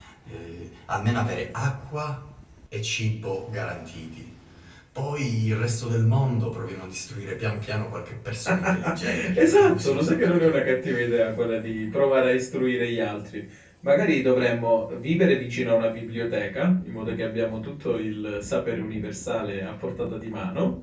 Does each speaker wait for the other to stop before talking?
No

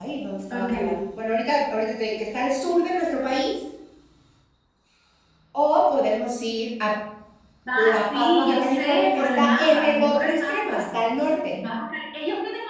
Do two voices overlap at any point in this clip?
Yes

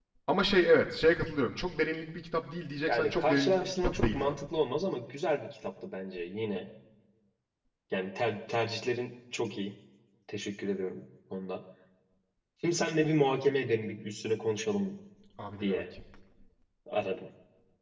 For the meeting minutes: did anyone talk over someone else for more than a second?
Yes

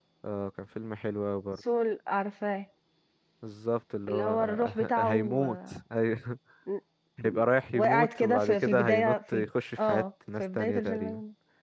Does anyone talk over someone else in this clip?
Yes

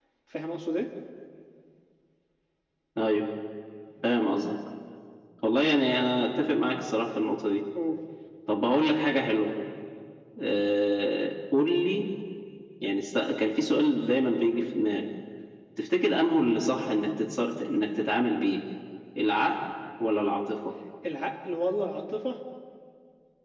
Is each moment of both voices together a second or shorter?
Yes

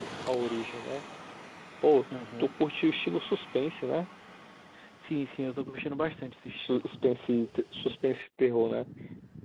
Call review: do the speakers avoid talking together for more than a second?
Yes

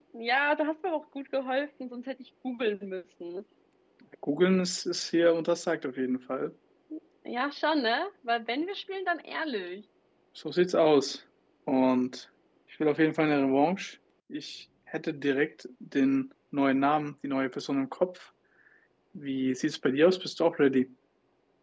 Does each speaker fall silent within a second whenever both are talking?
Yes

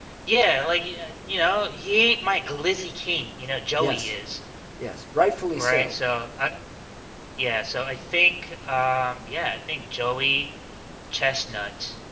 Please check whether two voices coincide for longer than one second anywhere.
No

